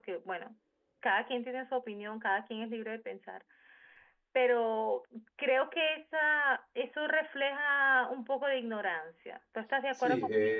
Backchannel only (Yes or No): No